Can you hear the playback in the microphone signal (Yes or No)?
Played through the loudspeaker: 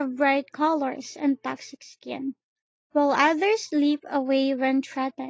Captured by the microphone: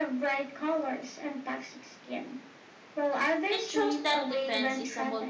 Yes